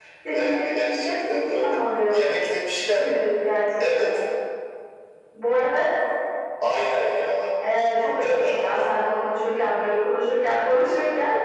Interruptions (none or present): present